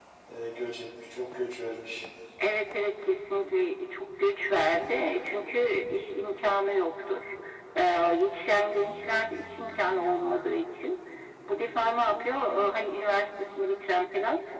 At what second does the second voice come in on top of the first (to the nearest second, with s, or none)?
none